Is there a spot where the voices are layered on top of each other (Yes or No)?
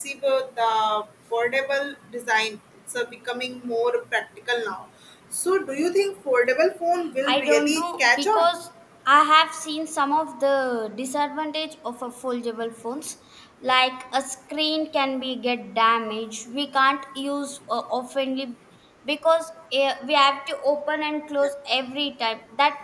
Yes